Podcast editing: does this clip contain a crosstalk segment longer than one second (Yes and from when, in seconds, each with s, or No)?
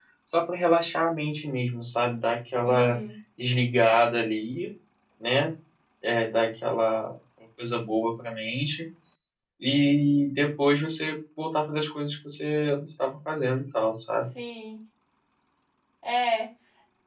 No